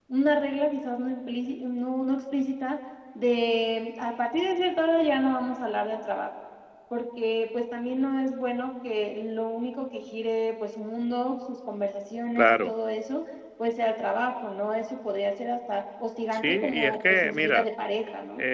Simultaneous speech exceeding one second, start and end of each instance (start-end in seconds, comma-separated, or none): 16.3-17.7